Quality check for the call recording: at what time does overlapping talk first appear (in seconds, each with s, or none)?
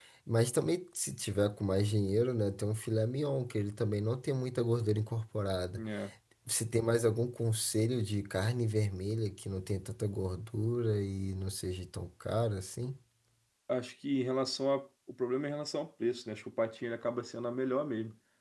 none